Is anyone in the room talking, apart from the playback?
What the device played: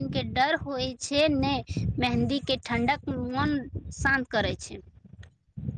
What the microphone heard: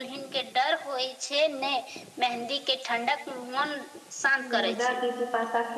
Yes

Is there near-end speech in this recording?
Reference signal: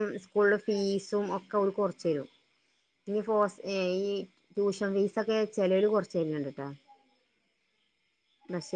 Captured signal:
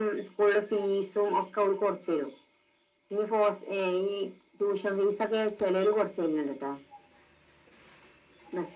No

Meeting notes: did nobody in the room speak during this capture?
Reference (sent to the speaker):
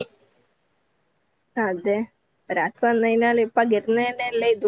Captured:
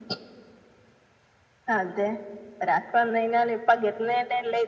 Yes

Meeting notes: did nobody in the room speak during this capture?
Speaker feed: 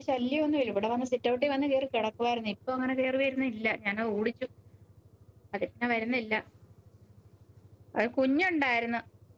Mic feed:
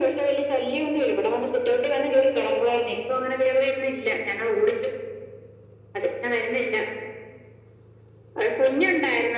Yes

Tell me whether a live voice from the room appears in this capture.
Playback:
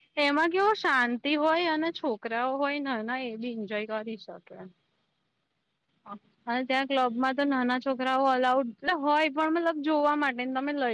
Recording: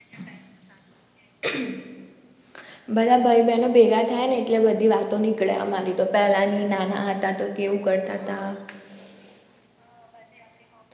Yes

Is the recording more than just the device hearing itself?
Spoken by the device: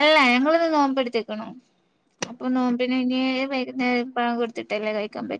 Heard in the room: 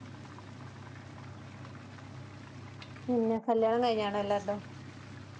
Yes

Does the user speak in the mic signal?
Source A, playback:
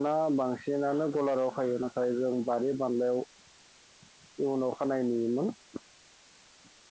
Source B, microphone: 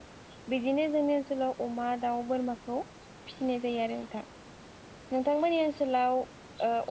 Yes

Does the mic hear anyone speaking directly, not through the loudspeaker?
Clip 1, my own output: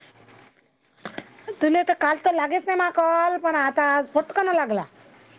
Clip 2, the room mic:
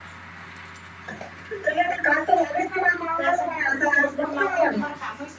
Yes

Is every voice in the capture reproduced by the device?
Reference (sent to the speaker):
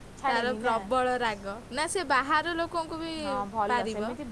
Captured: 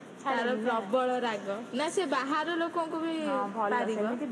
Yes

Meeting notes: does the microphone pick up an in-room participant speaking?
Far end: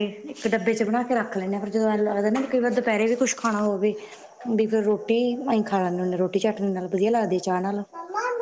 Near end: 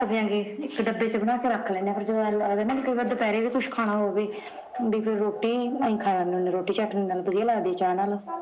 No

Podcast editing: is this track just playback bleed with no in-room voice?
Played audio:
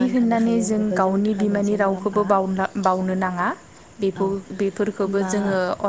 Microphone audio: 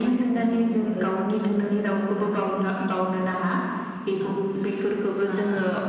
Yes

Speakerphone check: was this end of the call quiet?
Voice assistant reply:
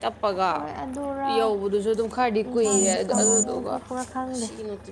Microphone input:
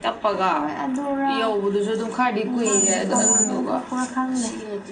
No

